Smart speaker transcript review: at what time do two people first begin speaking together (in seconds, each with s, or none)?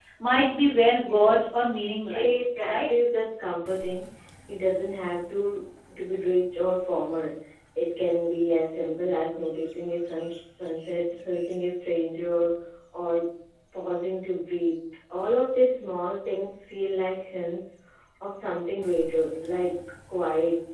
0.9 s